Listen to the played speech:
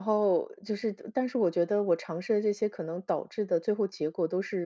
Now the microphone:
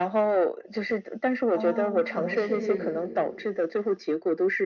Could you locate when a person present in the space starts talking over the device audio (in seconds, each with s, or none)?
1.5 s